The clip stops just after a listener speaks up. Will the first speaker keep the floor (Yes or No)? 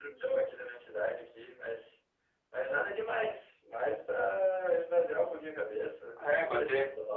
No